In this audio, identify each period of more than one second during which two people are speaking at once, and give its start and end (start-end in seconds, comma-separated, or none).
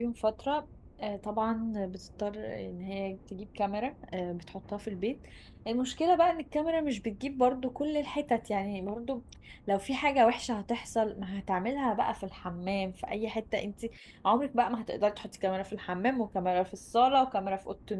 none